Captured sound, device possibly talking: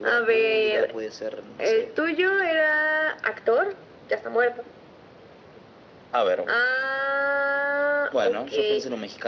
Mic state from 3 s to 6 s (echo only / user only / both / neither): echo only